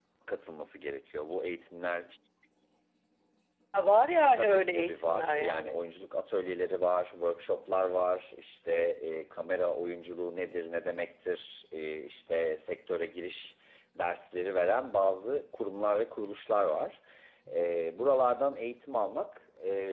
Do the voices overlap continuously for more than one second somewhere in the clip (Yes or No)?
Yes